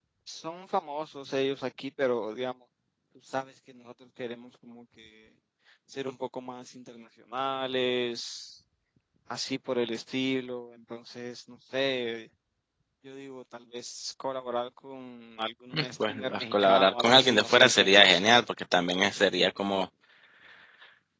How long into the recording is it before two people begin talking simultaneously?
15.7 s

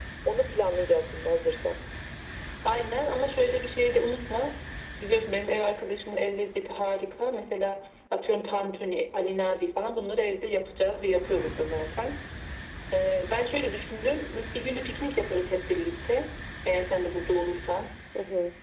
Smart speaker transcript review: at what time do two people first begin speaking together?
none

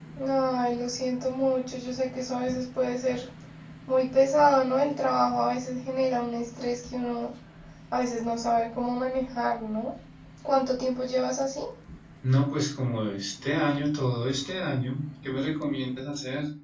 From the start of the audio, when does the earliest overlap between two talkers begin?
none

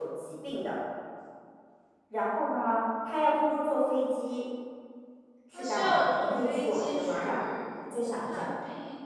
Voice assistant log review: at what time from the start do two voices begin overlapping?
5.5 s

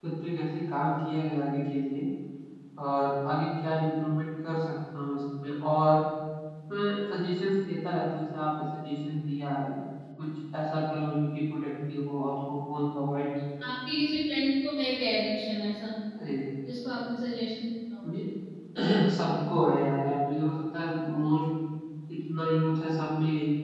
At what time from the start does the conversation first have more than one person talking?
none

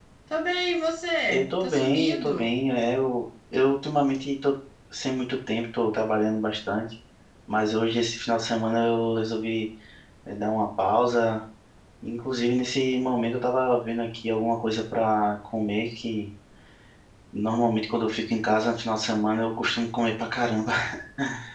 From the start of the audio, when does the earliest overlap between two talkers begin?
1.3 s

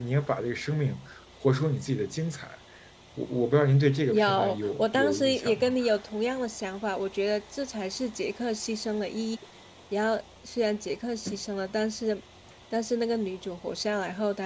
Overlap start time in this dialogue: 4.1 s

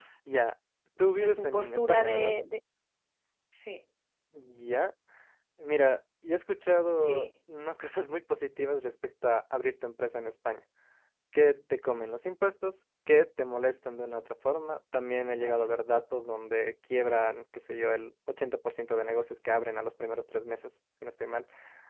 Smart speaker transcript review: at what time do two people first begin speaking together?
1.1 s

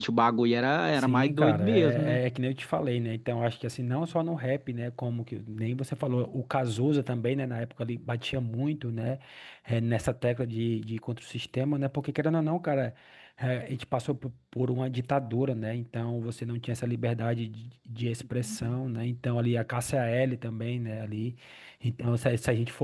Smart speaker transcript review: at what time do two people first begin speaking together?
1.0 s

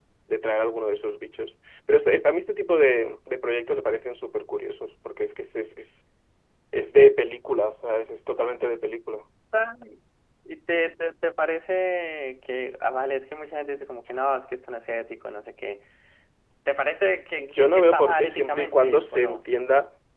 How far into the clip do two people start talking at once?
17.4 s

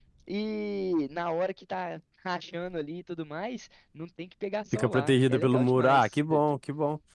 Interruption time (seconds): 4.7 s

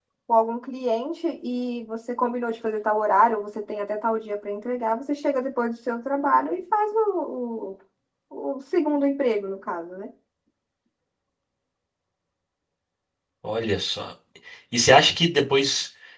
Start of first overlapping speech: none

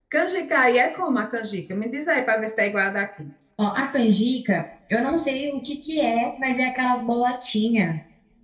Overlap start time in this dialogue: none

